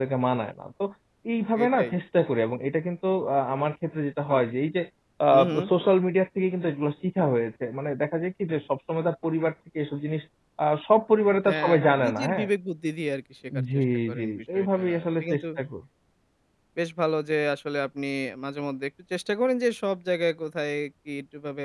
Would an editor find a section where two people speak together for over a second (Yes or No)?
Yes